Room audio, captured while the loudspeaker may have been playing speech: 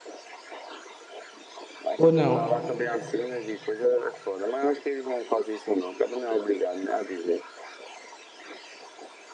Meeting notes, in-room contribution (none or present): present